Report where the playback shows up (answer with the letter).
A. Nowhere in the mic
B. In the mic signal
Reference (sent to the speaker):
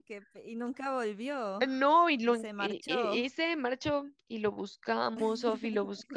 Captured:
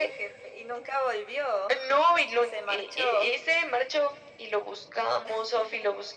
B